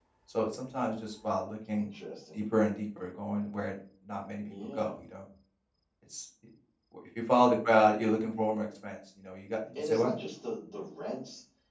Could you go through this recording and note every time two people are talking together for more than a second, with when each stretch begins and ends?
none

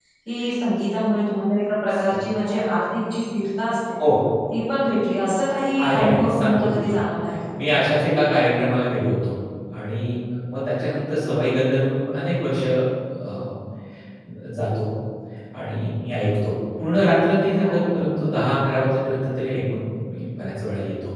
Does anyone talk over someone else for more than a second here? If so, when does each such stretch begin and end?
5.8-7.0

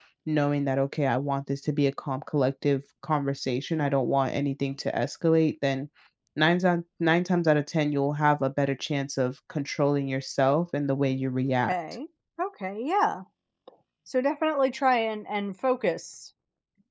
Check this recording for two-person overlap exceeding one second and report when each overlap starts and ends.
none

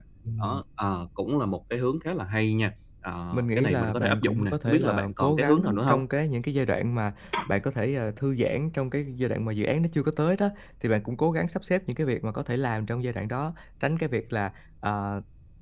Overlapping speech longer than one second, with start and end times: 3.3-6.0

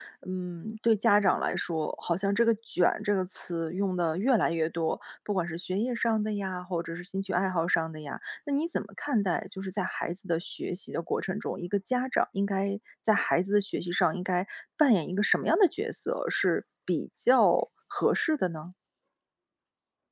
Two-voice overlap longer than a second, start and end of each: none

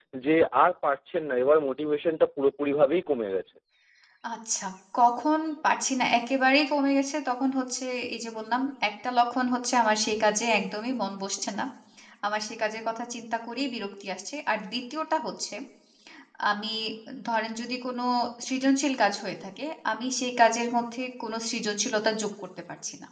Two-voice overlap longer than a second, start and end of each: none

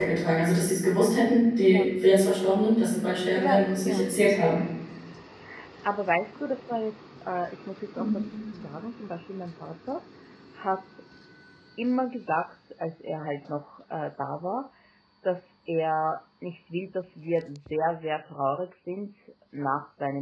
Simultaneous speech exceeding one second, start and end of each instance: 3.4-4.6

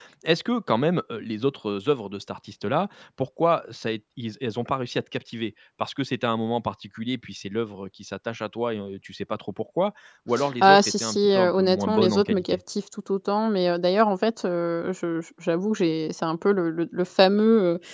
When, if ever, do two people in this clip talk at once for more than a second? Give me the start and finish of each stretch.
10.6-12.6

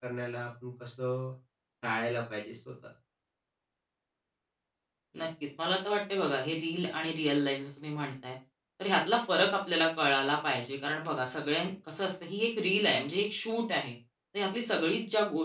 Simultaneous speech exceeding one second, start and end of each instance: none

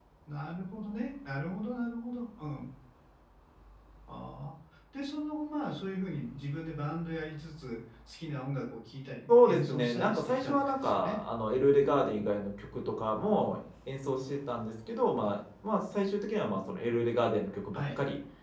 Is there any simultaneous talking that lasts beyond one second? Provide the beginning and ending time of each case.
9.3-11.2

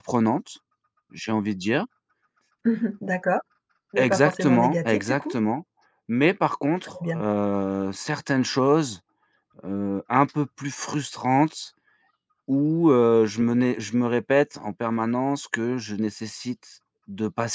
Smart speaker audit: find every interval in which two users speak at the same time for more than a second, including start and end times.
4.0-5.4

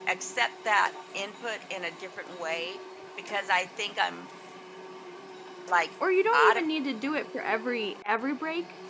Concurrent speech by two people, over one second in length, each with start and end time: none

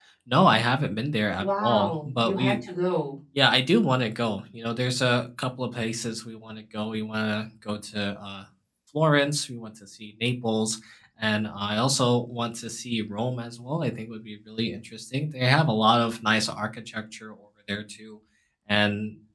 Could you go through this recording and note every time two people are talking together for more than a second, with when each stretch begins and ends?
1.4-2.6

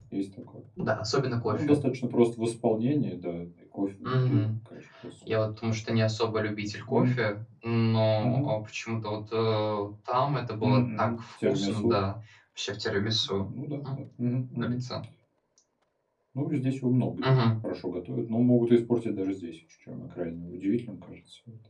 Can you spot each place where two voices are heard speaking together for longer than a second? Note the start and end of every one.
10.6-12.0

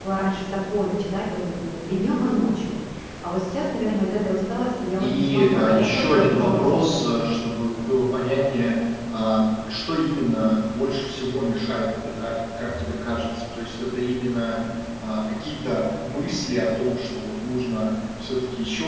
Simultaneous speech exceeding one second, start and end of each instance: 5.0-7.2

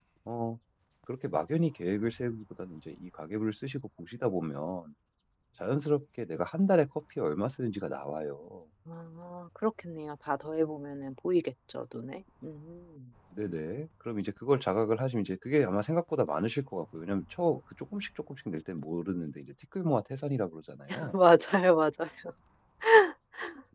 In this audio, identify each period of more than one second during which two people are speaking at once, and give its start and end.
none

